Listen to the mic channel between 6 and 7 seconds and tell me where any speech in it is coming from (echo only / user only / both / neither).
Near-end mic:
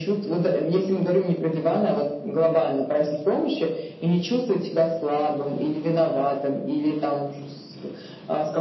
echo only